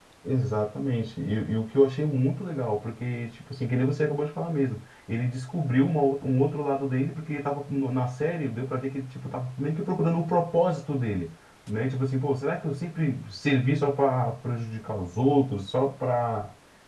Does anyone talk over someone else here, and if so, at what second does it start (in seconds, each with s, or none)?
none